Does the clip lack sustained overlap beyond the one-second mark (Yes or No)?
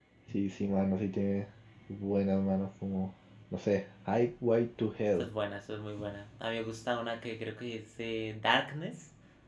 Yes